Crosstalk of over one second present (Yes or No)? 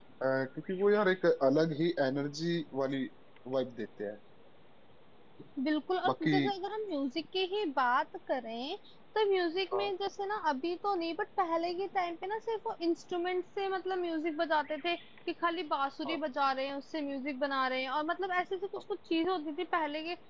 No